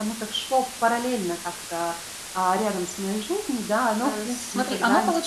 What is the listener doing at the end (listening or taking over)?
taking over